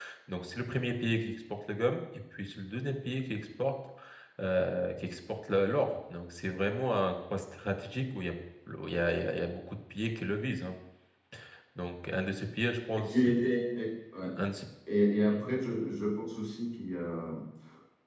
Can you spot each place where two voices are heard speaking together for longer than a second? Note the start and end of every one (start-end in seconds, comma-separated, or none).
none